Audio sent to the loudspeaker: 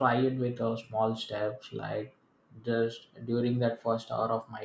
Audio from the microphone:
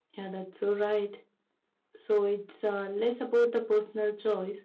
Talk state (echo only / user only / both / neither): user only